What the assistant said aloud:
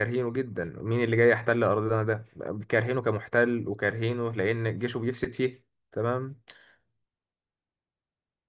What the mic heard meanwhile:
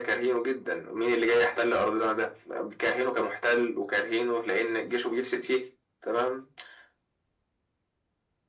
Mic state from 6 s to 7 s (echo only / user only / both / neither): echo only